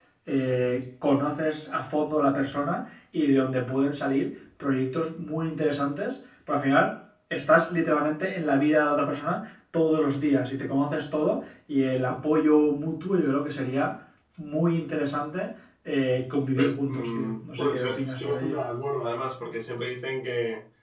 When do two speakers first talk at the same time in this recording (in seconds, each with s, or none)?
16.6 s